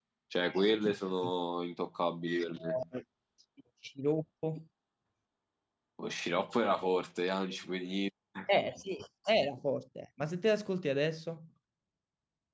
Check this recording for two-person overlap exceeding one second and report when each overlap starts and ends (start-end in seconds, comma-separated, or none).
none